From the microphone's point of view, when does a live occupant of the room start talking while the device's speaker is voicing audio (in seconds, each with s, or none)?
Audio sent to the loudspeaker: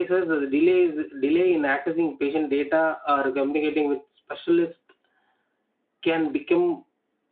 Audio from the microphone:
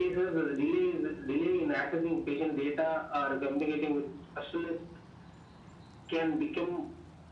none